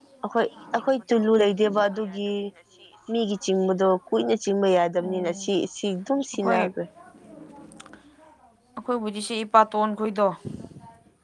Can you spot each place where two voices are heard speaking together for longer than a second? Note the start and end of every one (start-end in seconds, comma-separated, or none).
none